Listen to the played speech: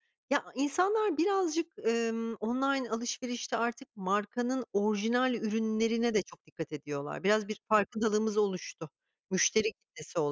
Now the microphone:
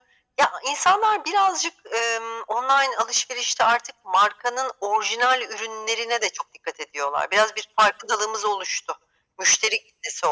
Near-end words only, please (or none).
none